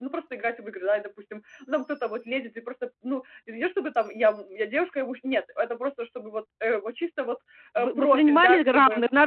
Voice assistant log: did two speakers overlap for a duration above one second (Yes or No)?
Yes